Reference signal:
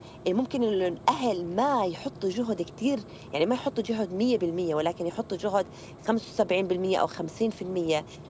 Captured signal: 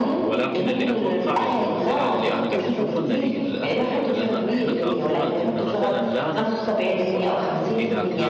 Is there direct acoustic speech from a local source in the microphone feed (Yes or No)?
Yes